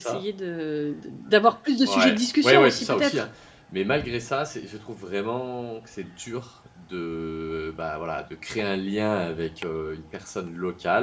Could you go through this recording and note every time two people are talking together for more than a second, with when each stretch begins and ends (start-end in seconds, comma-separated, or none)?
1.8-3.2